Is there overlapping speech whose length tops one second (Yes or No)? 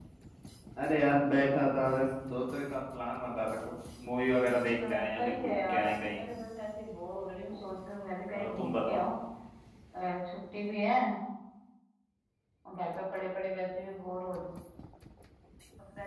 Yes